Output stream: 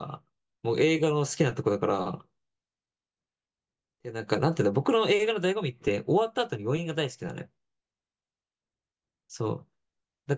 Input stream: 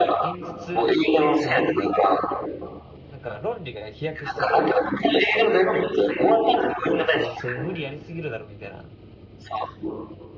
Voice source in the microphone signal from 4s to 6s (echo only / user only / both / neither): both